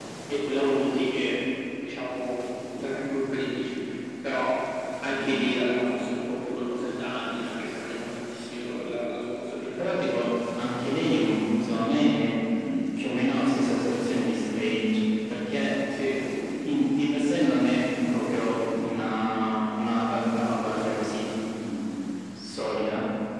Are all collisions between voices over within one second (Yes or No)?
Yes